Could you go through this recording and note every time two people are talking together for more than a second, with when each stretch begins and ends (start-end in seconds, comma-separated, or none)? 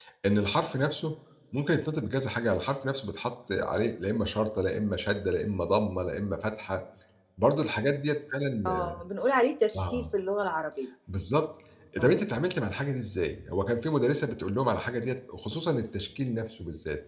none